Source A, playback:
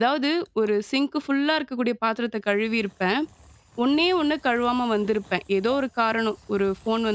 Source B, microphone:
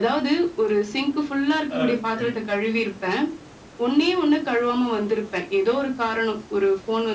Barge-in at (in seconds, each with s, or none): 1.8 s